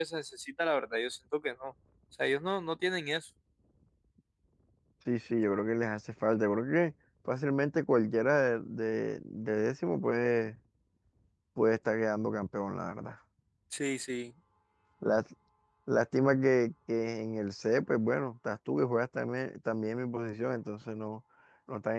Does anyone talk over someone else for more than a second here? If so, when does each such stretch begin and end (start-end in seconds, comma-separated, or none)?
none